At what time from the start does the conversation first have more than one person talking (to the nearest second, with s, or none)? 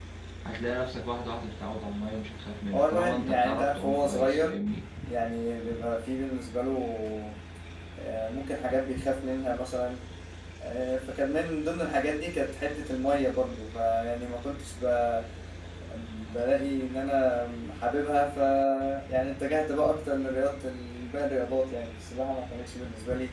3 s